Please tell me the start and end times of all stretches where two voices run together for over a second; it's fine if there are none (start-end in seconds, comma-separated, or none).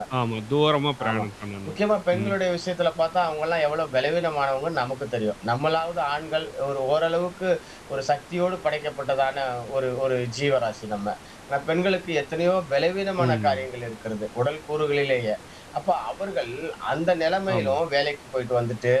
none